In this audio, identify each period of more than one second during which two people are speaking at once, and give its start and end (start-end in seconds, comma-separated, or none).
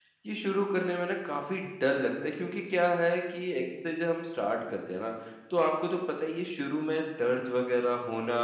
none